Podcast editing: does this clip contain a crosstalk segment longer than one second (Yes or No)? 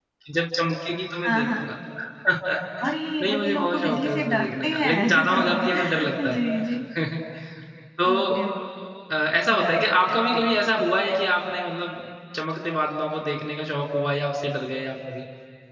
Yes